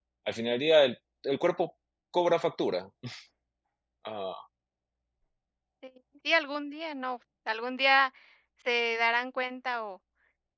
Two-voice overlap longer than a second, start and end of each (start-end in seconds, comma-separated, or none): none